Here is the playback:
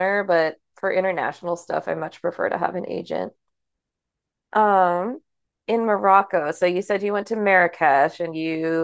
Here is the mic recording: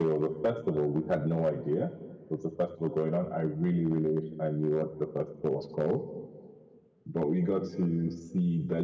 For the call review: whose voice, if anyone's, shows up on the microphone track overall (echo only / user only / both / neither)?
user only